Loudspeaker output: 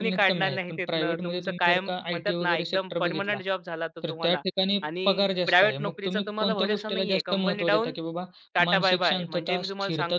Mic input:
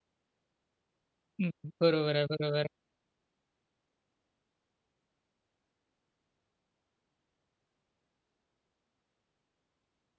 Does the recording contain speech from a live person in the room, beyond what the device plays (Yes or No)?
Yes